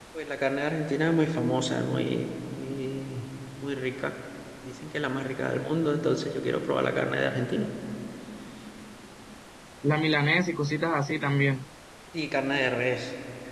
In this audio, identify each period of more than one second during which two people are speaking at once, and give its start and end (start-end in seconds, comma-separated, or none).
none